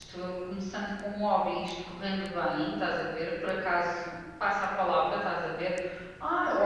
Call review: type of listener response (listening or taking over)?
listening